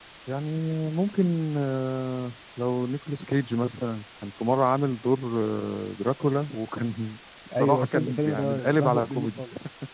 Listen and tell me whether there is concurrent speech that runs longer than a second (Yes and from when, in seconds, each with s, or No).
Yes, from 7.5 s